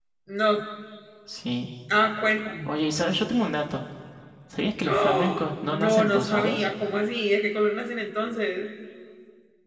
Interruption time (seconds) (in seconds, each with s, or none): 4.8 s